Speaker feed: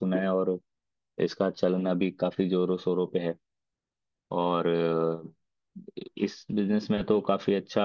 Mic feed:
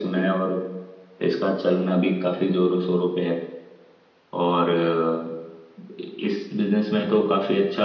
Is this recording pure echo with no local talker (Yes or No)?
Yes